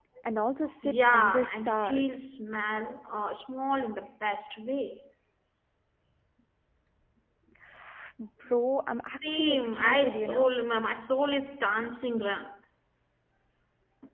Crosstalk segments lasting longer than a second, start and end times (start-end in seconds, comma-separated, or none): 0.8-2.1, 9.3-10.6